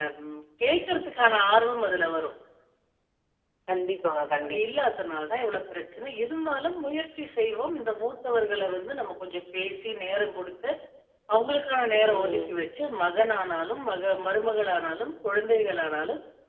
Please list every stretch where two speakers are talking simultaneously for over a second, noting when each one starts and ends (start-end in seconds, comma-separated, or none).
none